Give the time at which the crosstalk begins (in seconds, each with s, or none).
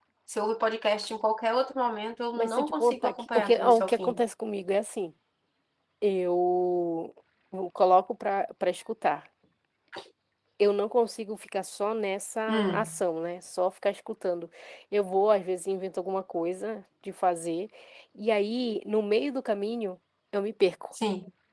2.3 s